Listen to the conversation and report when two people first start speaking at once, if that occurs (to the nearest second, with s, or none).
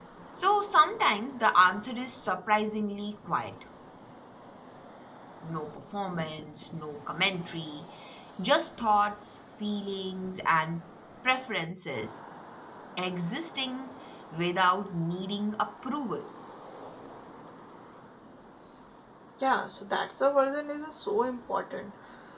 none